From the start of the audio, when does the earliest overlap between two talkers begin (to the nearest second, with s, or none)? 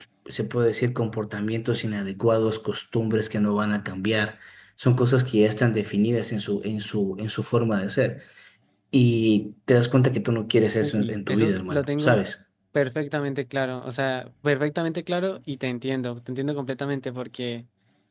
11 s